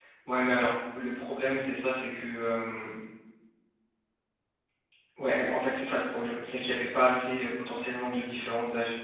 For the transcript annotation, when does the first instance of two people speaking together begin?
none

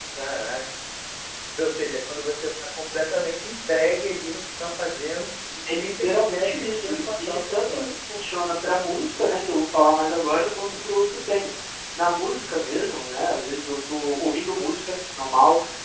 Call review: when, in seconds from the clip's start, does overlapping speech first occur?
6 s

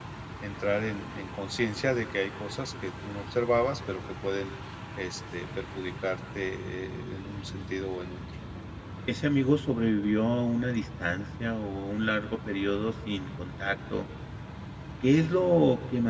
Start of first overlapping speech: none

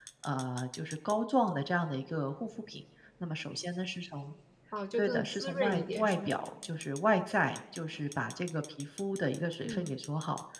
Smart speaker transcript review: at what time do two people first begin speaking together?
5 s

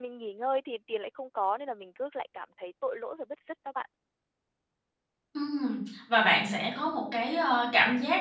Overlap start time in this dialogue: none

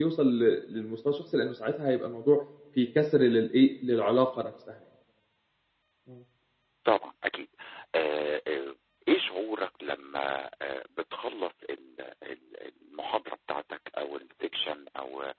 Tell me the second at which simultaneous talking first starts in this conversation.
none

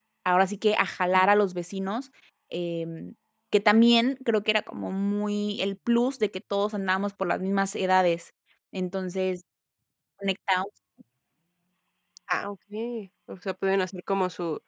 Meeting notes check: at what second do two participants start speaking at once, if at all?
none

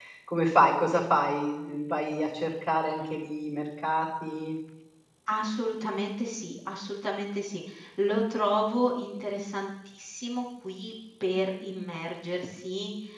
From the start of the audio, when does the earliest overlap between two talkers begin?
none

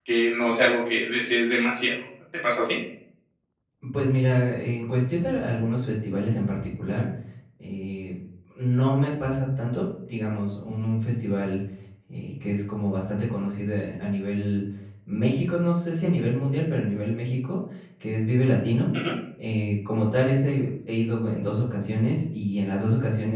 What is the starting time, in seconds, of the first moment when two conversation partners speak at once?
none

